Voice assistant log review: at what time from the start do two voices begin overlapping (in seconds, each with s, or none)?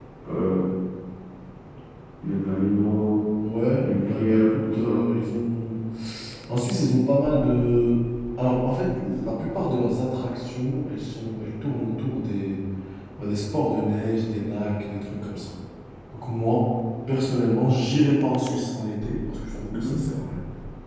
3.8 s